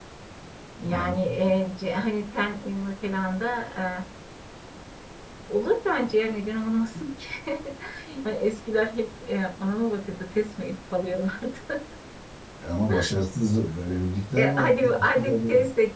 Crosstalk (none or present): present